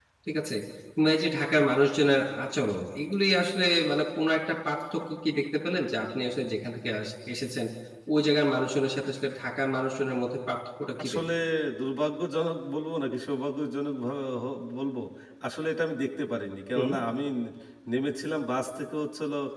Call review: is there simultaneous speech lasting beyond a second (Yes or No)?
No